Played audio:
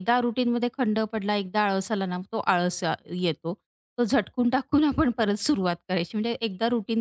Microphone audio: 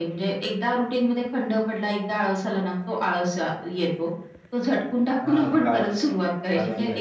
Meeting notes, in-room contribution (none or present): present